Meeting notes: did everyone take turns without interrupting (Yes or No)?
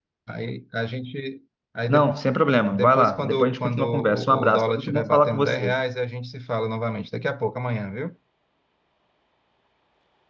No